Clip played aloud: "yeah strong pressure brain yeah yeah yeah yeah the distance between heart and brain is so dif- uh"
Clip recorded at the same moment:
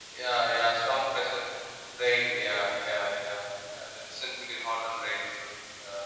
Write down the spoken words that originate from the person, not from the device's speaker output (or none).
none